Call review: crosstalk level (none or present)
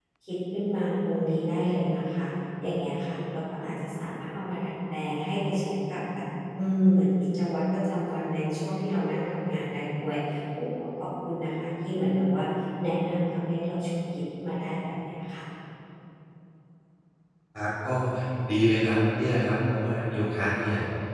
none